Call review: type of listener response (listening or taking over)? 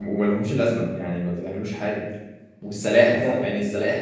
listening